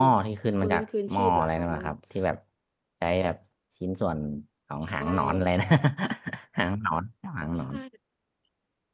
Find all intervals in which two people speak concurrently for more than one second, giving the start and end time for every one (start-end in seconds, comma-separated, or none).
0.6-1.8